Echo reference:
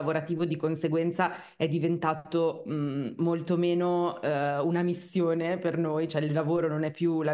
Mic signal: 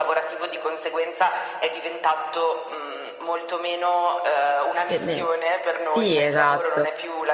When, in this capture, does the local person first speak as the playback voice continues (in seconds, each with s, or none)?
4.8 s